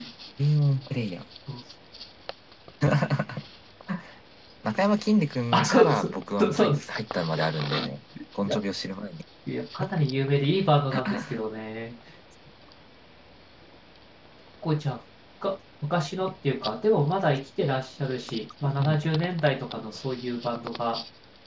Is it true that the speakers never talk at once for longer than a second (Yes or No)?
No